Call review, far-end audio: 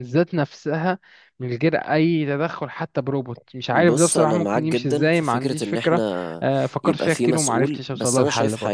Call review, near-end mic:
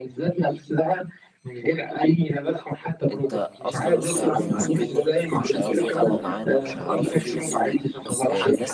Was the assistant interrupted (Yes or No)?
Yes